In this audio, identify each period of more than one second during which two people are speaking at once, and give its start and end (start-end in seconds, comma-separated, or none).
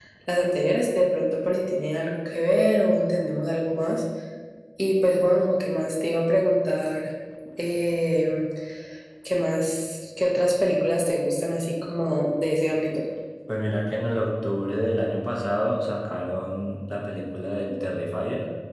none